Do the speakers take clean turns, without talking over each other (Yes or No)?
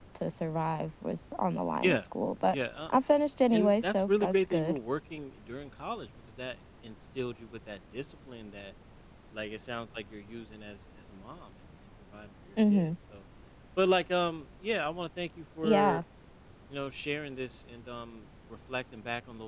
No